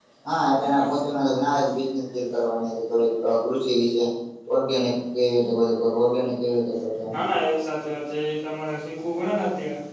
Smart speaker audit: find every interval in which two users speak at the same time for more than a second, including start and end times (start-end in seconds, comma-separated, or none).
none